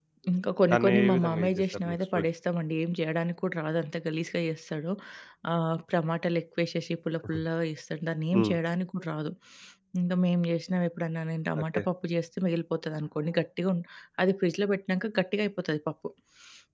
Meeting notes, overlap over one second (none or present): present